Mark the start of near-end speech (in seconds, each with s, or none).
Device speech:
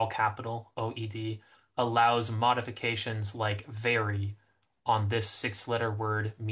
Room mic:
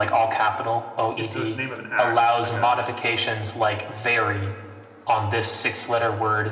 1.2 s